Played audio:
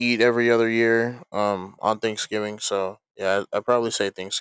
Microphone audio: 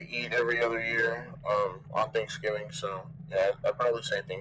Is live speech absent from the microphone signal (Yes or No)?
Yes